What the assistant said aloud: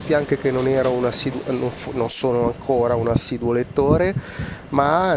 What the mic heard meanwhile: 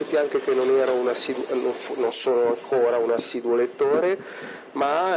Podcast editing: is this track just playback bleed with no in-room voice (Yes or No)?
Yes